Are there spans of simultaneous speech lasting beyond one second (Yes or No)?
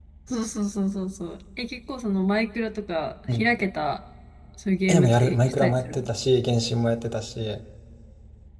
Yes